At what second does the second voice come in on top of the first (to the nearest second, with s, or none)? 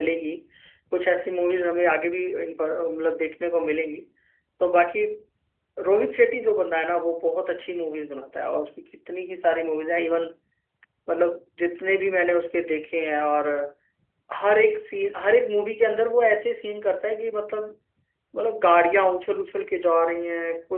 none